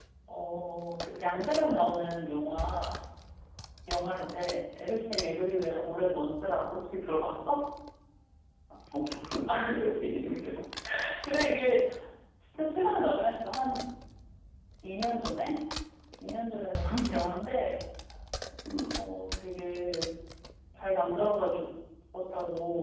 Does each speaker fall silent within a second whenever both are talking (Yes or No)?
Yes